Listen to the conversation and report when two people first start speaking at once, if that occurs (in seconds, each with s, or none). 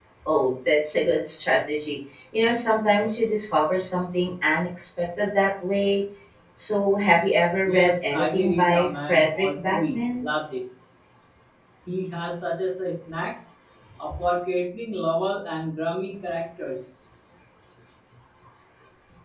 7.6 s